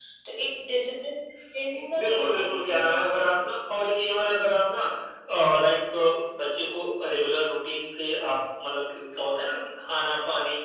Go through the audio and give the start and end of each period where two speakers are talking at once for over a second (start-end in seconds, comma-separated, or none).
2.0-3.5